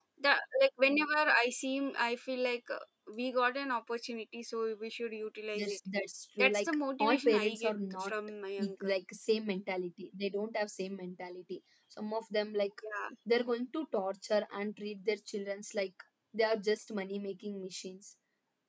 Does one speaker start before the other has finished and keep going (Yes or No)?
Yes